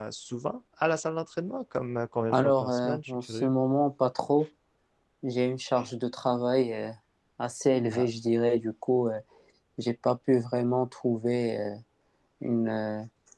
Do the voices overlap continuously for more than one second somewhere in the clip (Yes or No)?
Yes